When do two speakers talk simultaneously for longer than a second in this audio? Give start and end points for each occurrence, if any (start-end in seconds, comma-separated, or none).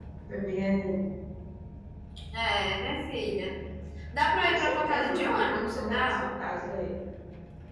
4.5-6.2